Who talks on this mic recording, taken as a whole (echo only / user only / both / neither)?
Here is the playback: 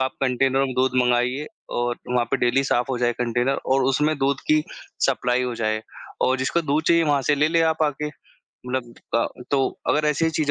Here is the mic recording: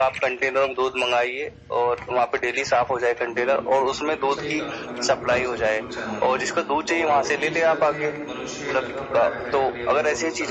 both